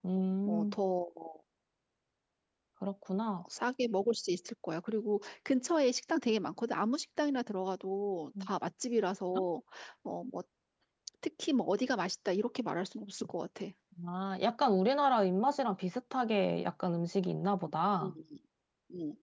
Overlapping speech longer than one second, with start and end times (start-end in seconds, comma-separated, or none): none